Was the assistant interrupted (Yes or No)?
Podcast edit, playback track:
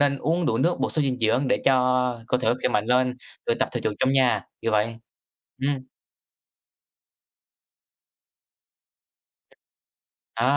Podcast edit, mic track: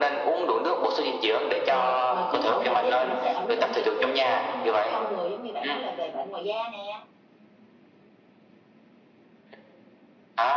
Yes